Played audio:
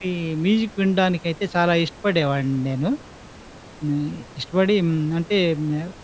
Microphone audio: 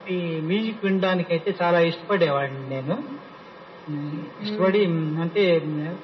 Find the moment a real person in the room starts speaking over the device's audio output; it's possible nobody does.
4.4 s

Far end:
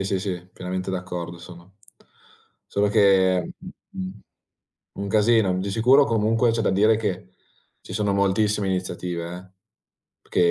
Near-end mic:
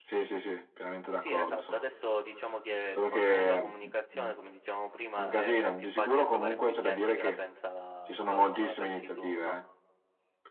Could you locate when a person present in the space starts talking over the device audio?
1.1 s

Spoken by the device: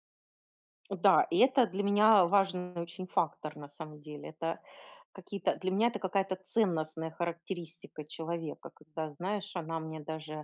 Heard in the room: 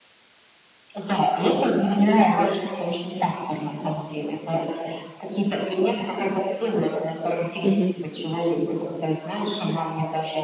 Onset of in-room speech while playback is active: 7.6 s

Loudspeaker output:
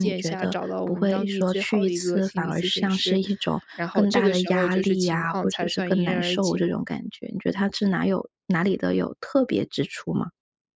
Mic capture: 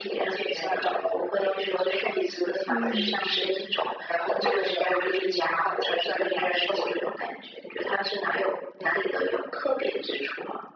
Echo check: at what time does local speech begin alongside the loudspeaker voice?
2.7 s

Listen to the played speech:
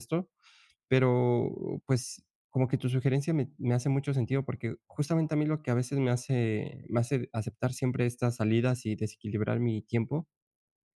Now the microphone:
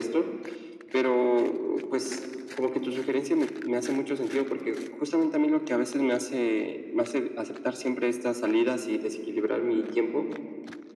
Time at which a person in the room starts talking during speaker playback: none

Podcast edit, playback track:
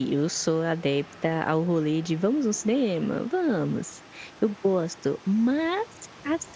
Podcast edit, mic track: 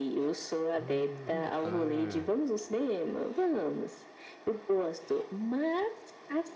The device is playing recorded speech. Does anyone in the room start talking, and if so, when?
0.8 s

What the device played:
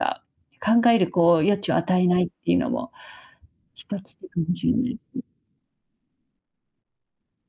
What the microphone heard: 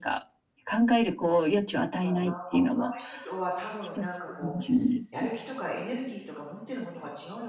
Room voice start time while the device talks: 2.0 s

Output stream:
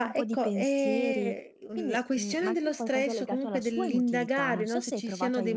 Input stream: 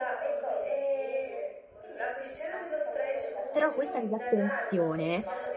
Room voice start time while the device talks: 3.5 s

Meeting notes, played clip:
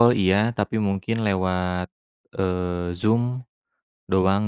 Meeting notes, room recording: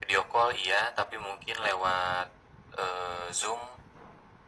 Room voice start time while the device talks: none

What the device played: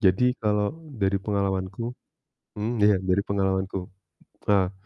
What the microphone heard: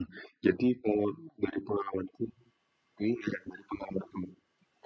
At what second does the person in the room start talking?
none

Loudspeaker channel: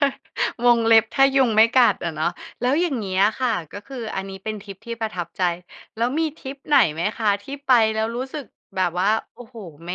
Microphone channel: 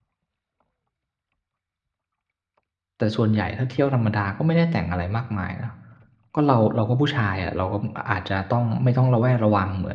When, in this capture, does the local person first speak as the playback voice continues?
3.0 s

